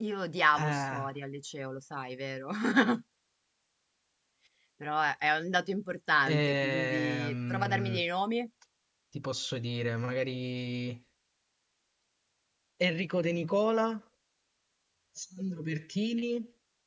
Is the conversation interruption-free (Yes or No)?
No